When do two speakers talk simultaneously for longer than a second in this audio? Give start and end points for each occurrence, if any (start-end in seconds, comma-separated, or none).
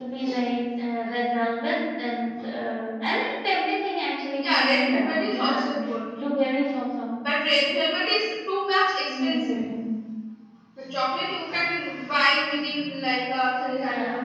4.4-5.7